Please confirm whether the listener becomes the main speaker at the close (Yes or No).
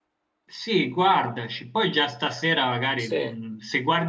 No